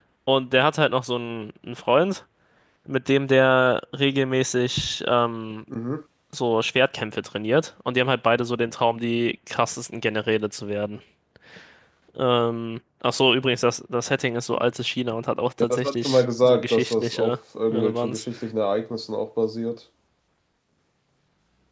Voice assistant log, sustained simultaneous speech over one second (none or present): present